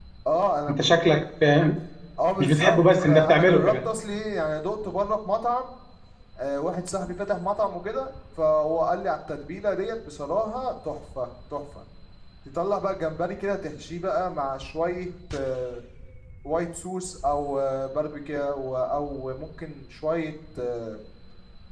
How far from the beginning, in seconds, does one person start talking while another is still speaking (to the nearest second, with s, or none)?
2 s